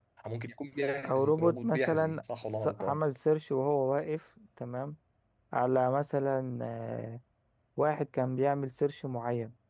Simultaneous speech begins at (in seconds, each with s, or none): 1.0 s